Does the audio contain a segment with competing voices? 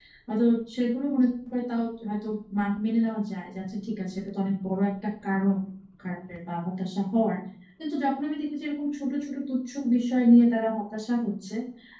No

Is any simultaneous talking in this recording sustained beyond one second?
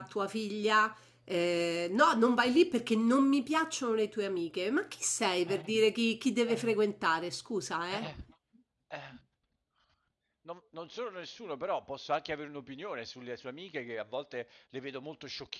No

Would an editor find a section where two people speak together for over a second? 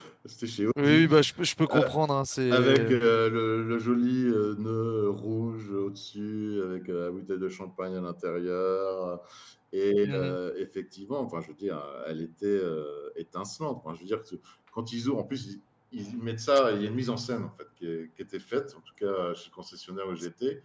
No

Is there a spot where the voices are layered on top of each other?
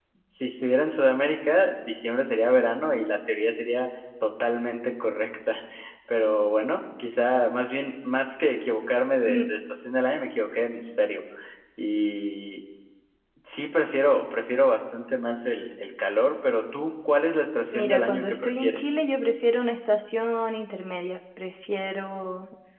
Yes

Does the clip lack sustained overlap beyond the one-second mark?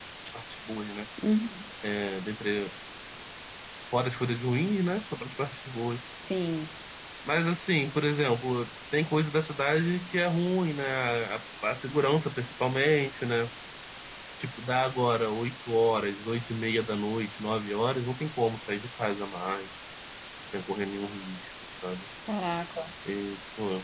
Yes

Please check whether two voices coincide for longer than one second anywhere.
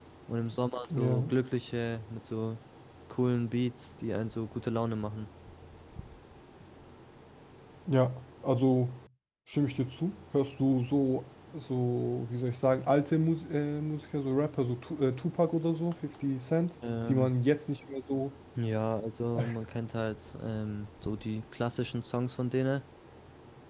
No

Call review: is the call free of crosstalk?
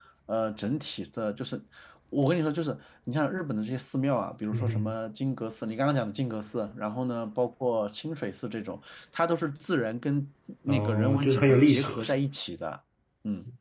No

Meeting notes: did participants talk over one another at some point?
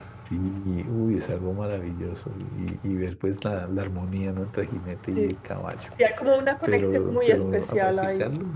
Yes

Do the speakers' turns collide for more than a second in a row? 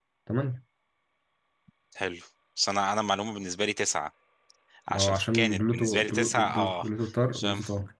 Yes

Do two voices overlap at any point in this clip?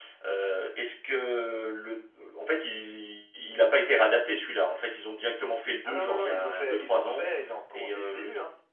Yes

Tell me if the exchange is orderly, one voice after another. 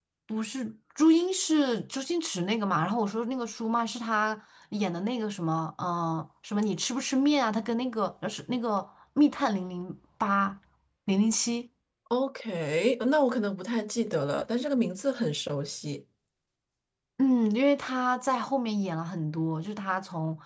Yes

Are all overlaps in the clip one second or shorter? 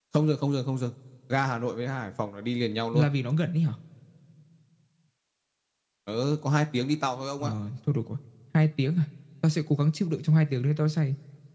Yes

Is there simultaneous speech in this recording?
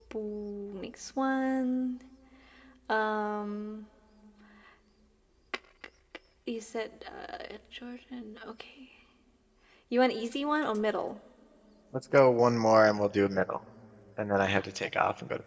No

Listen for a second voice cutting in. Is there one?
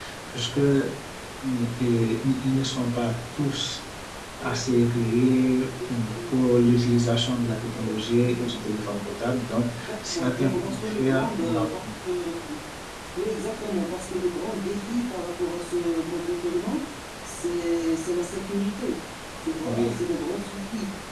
Yes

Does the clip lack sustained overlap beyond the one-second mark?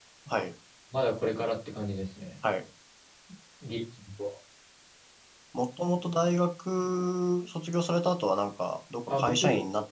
Yes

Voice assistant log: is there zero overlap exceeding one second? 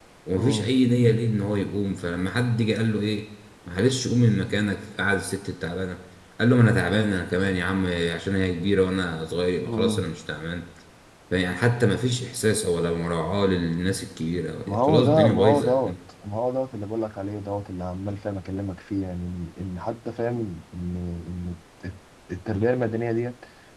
No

